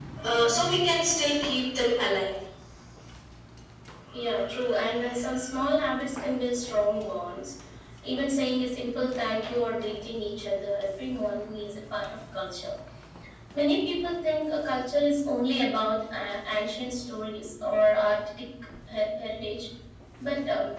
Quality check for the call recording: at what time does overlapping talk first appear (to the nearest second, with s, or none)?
none